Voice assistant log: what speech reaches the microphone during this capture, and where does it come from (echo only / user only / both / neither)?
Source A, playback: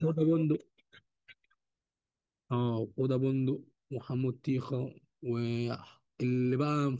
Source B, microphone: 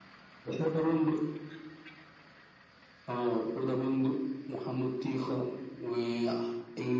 echo only